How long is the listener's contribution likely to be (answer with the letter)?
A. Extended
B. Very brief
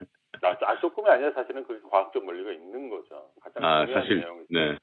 A